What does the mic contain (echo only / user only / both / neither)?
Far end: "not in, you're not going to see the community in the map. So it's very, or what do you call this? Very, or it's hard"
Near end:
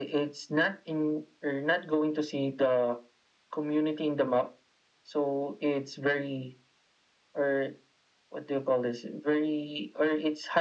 echo only